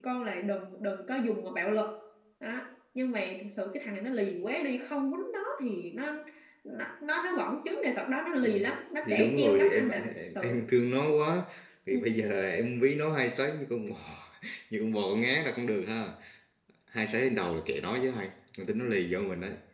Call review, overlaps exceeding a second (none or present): present